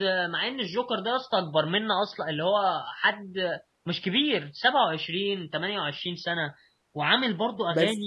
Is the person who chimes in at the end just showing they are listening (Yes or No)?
Yes